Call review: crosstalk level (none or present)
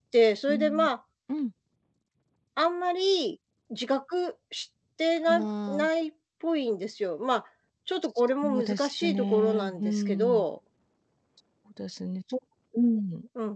present